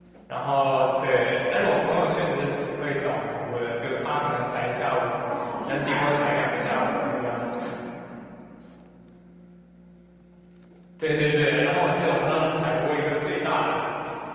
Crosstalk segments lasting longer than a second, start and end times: 5.7-7.6

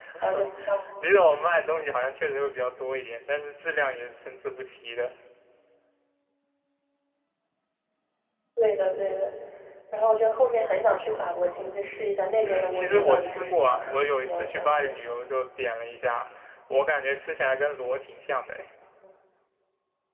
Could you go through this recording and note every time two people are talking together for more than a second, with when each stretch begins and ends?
12.4-15.2

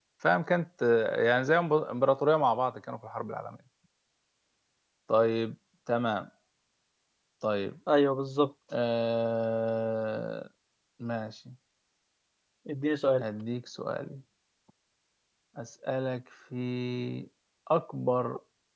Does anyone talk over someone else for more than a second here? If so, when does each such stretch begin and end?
none

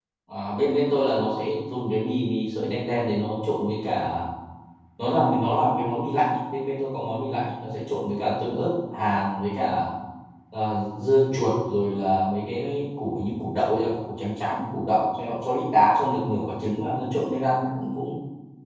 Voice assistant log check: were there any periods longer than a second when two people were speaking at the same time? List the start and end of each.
none

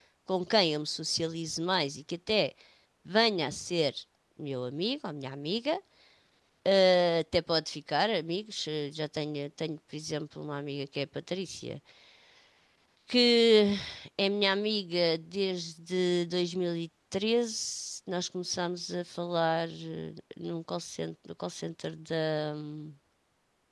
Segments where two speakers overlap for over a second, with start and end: none

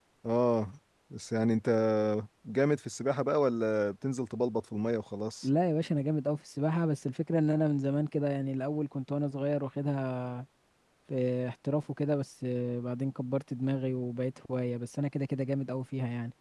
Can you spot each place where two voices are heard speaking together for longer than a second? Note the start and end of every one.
none

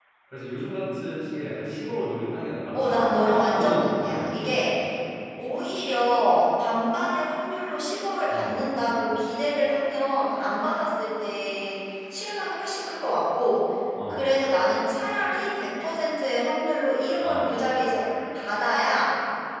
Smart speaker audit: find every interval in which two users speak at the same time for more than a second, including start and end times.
2.7-4.3

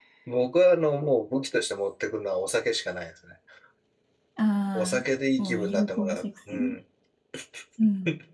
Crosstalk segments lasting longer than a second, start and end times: 5.4-6.7

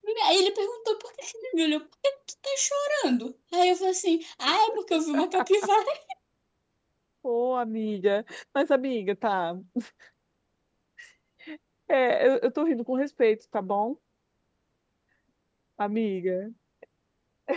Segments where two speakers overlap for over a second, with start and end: none

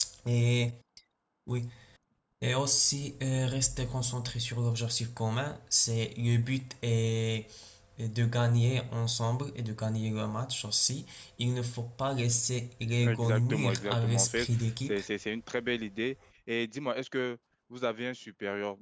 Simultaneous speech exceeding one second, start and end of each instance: 13.0-15.0

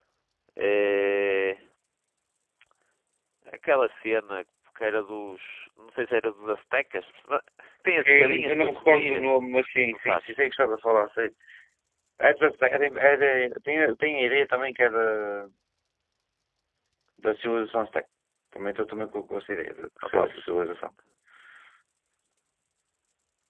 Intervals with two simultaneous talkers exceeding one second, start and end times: 8.0-9.3

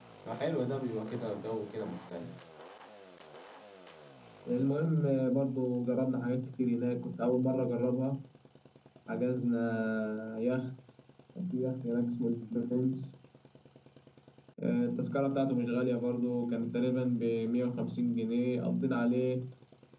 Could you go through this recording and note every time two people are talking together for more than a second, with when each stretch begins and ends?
none

